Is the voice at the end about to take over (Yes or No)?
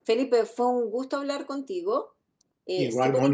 No